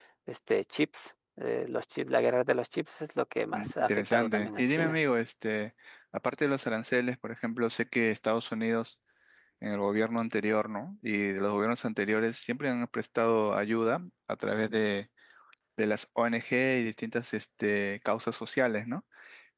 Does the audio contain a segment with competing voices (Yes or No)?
Yes